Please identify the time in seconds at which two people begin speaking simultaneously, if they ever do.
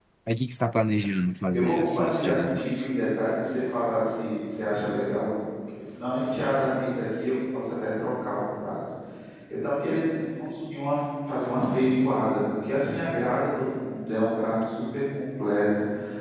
1.5 s

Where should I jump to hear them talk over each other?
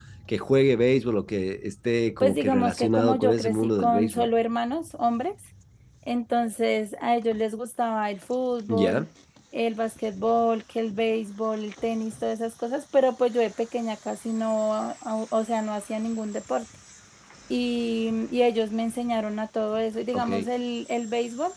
2.2 s

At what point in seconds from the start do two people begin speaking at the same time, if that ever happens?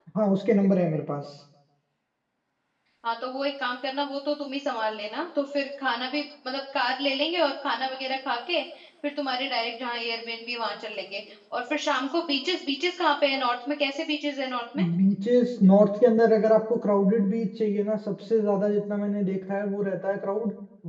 none

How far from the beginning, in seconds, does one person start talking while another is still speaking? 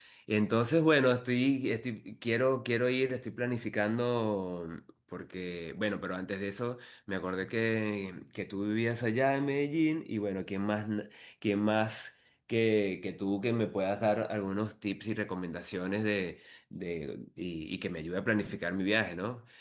none

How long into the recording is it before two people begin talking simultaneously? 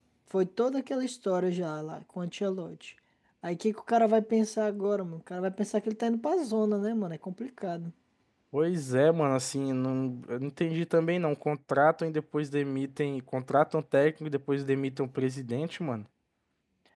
none

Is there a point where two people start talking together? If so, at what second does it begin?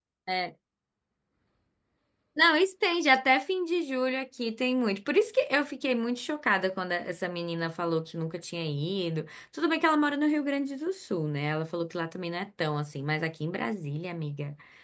none

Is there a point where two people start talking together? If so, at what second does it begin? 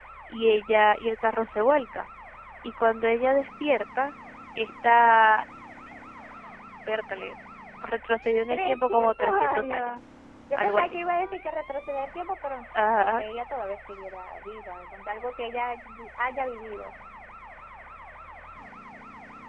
8.5 s

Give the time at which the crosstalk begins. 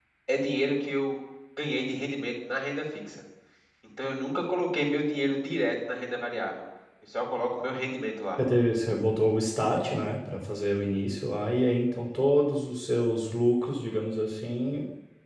none

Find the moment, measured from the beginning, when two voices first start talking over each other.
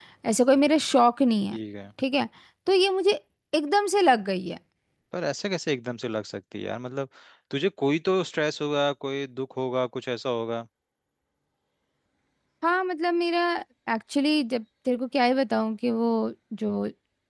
none

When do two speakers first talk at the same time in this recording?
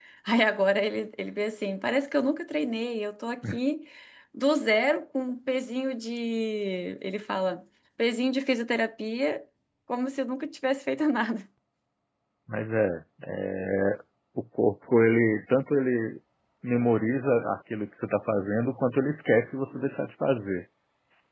none

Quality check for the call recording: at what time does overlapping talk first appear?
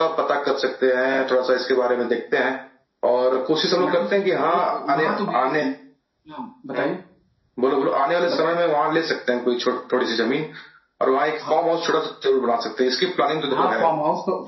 3.8 s

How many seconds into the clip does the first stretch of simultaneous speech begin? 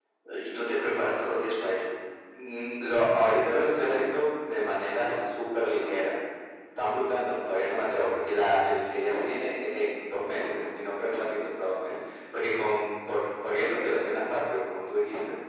none

